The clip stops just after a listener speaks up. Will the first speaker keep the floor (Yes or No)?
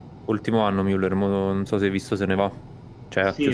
No